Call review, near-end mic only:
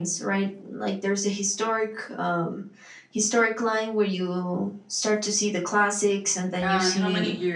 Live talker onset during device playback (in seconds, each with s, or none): 6.6 s